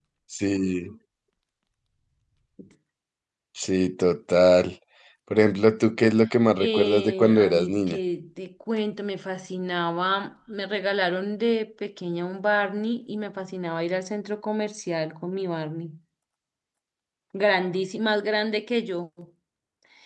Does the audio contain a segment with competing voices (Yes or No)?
Yes